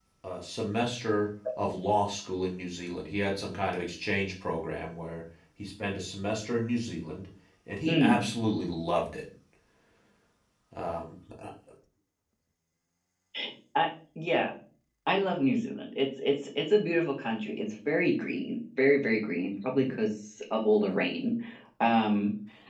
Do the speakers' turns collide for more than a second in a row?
No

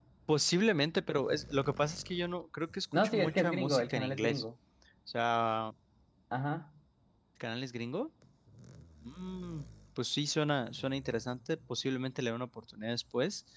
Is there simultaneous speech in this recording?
Yes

